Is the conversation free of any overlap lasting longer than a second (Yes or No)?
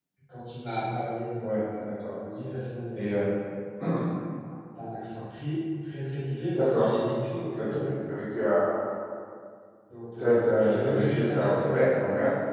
No